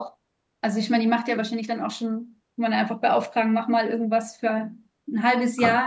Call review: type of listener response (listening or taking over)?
listening